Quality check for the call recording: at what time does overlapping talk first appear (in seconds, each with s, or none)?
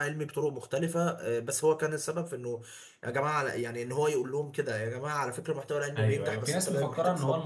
6.0 s